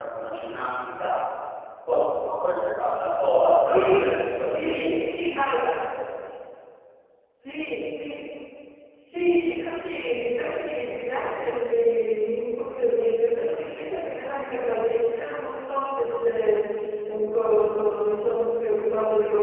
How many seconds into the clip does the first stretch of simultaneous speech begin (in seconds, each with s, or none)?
3.6 s